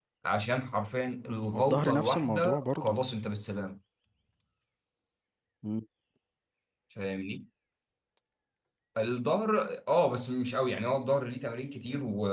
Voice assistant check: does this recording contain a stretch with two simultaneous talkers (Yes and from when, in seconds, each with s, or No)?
Yes, from 1.5 s